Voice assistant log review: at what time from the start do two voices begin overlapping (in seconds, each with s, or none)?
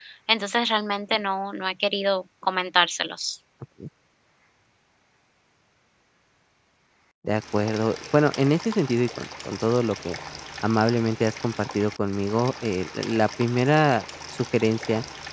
none